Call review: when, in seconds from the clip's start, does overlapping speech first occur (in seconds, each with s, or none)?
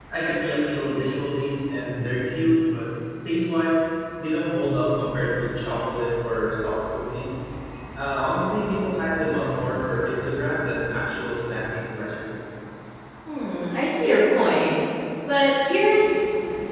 none